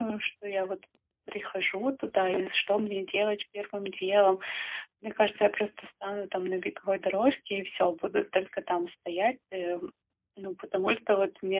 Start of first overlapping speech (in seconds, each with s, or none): none